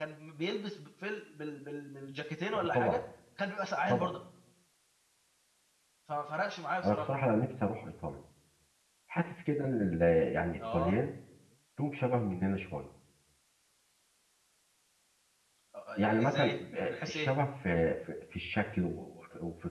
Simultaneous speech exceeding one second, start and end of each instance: 16.0-17.3

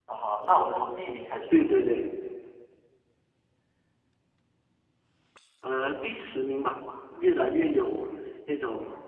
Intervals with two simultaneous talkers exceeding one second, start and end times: none

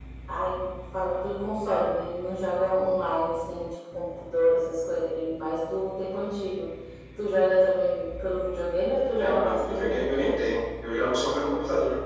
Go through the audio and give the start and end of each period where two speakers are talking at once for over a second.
9.1-10.4

